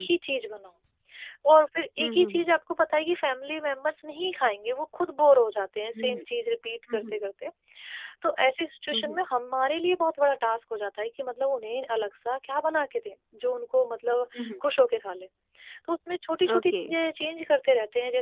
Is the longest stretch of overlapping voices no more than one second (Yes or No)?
Yes